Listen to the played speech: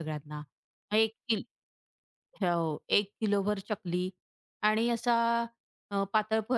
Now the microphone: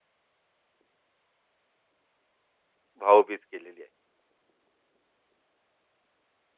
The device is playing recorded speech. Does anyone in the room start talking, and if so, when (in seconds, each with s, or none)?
3.0 s